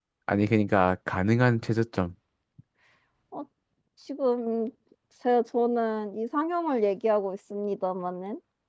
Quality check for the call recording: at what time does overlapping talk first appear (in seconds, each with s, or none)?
none